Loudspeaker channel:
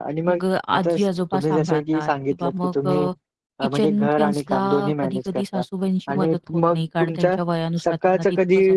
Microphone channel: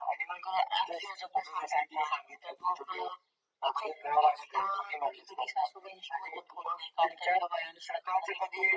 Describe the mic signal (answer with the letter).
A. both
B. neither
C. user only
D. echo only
D